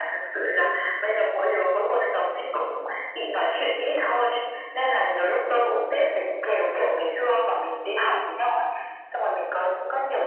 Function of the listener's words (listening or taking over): listening